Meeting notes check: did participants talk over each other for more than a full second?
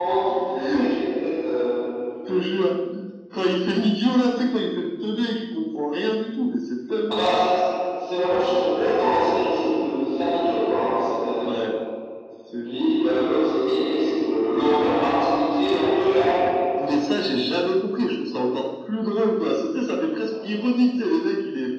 No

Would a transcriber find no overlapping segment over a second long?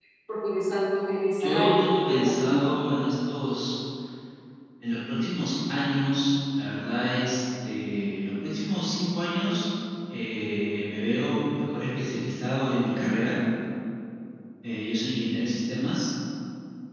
No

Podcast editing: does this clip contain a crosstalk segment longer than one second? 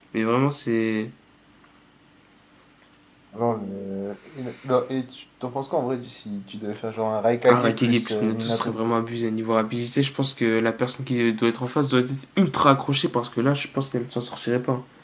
Yes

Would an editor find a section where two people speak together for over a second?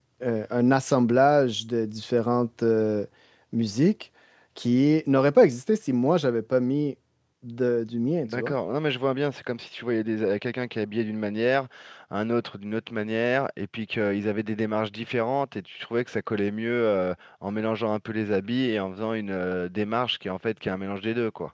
No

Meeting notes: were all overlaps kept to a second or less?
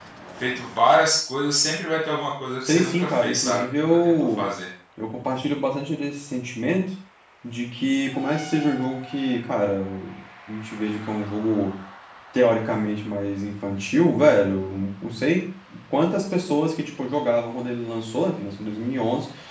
No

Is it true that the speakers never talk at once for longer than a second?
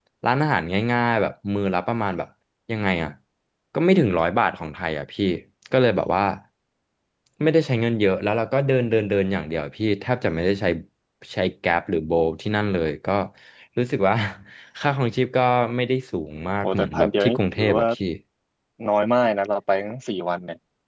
No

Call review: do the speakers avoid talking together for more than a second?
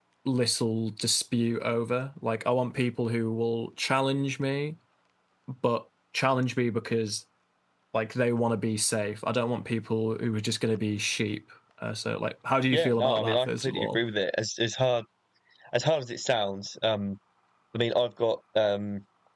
No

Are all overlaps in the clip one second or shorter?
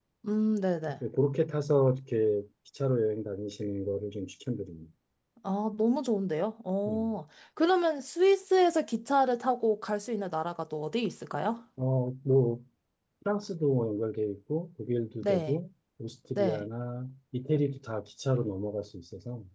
Yes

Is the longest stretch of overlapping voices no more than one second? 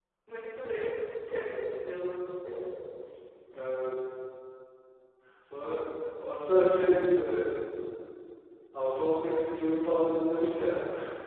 Yes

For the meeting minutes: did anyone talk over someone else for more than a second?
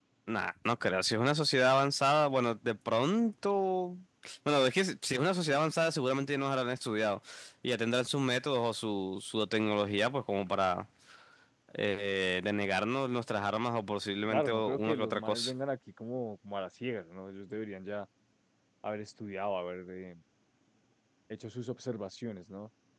Yes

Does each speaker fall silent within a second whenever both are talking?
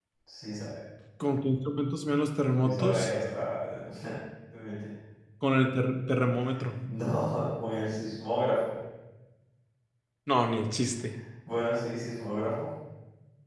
Yes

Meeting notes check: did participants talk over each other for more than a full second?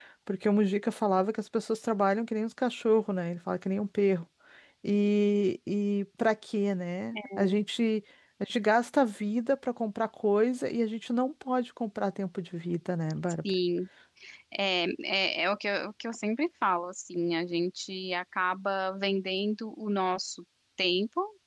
No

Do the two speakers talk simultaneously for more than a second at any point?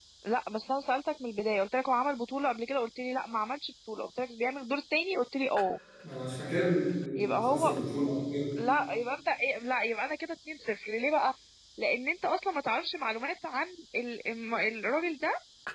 No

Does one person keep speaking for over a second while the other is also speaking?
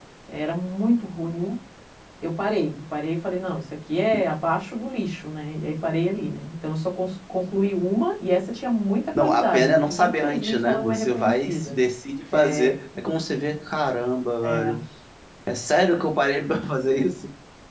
Yes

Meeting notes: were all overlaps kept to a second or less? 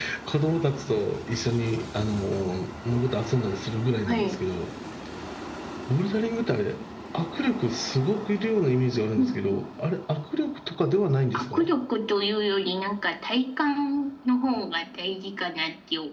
Yes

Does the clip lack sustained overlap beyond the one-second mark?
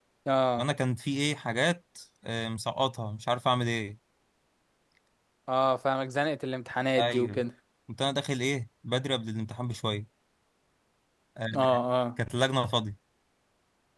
Yes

